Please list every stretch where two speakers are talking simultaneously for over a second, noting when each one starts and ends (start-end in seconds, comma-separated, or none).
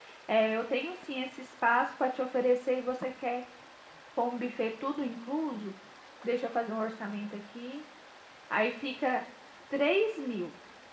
none